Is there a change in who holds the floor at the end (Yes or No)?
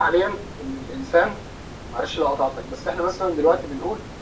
No